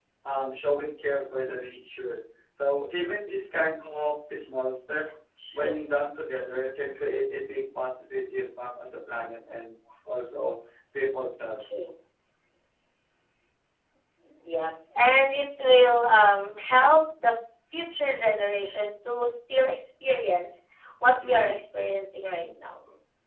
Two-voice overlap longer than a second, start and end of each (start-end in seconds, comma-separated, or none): none